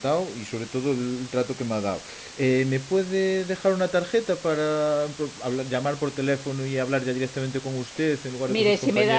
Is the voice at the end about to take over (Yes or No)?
Yes